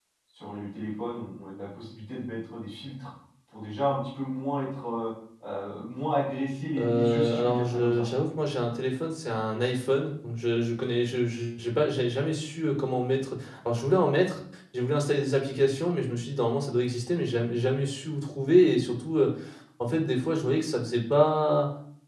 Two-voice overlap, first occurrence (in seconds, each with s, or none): 6.8 s